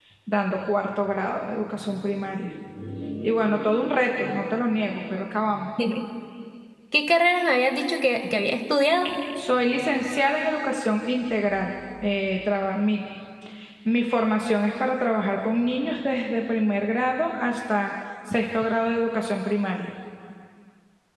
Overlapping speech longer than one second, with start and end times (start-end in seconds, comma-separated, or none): none